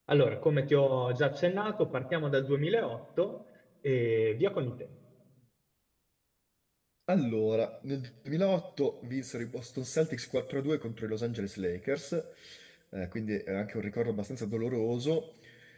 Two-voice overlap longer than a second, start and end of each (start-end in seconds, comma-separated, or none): none